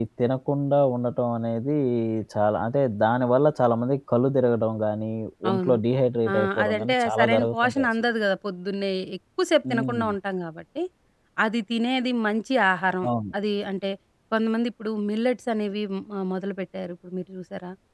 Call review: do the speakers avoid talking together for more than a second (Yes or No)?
No